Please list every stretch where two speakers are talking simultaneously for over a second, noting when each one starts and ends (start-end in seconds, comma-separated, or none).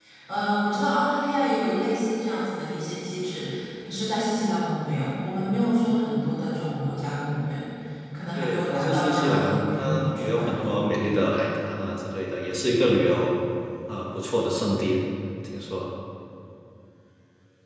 8.4-10.7